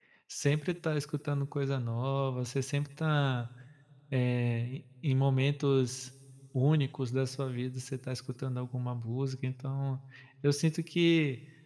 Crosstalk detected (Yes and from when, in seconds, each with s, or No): No